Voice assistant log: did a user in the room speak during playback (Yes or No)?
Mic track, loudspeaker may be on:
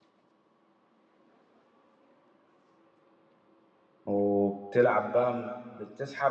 Yes